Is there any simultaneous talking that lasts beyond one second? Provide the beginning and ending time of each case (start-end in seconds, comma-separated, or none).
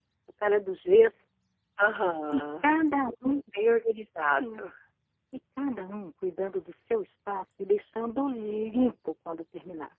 none